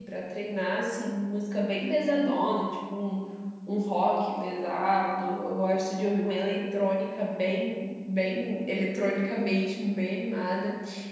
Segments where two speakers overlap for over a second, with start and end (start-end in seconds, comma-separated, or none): none